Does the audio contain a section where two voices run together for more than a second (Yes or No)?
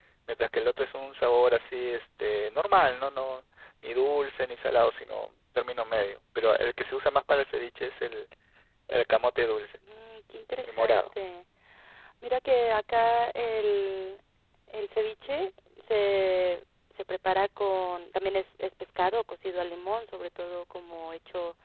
No